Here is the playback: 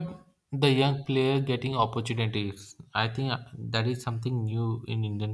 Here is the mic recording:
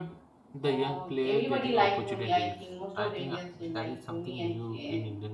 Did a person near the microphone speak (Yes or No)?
Yes